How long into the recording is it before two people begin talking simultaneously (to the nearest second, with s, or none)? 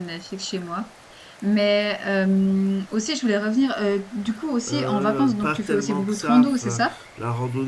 5 s